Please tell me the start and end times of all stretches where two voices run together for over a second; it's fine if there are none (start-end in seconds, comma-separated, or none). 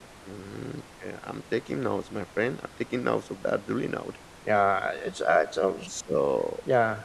none